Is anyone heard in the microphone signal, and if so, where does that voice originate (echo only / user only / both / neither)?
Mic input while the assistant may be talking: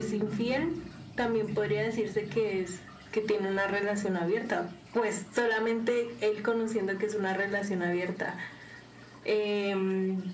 echo only